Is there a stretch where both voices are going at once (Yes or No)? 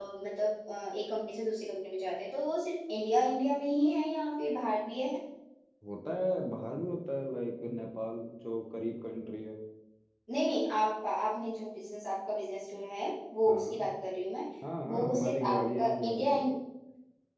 Yes